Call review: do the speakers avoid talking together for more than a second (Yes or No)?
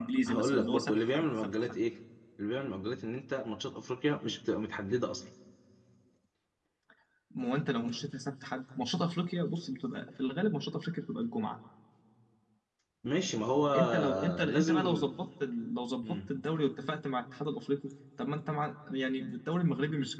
No